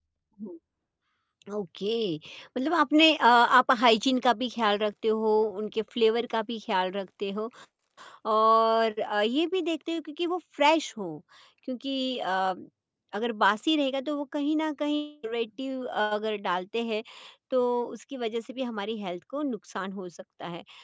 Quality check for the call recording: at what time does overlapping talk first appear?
none

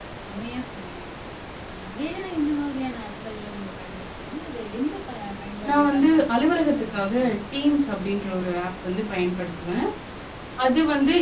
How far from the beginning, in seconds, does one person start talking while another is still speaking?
5.6 s

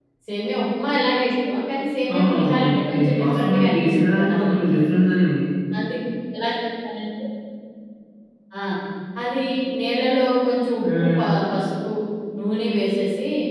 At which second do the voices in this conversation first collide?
2.1 s

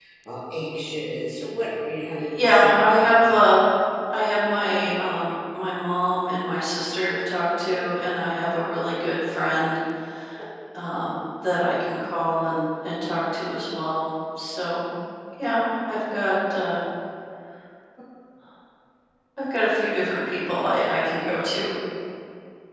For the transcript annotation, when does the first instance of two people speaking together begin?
2.1 s

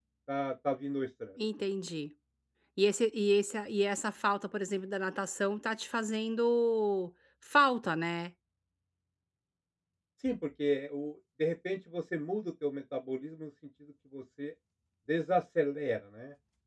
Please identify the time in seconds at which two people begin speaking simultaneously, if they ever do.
none

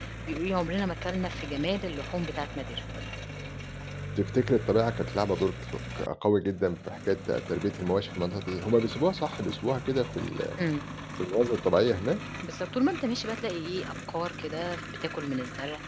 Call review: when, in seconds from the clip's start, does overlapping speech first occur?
none

